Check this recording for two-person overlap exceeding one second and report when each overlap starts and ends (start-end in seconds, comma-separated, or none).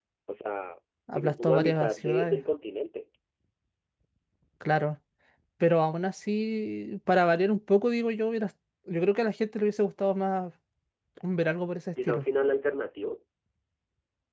1.1-2.4